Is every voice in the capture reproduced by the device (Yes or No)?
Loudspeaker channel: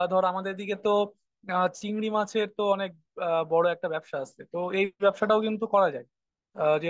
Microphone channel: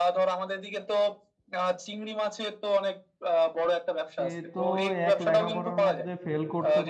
No